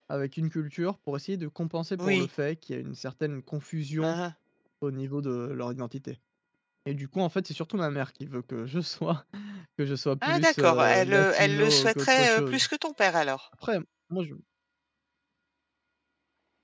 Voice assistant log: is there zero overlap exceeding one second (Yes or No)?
No